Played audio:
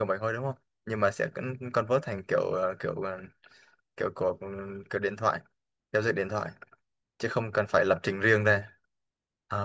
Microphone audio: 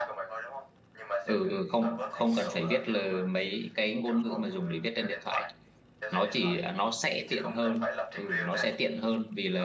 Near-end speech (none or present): present